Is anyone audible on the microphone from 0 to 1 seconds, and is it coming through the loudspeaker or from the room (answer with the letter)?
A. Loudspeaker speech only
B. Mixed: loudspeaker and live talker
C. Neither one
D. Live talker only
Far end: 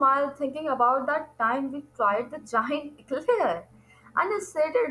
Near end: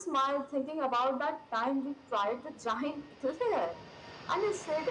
A